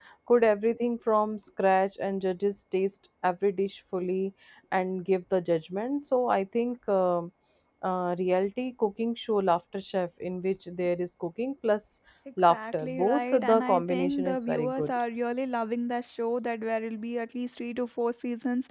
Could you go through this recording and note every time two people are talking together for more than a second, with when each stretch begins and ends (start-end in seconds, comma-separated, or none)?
12.5-15.0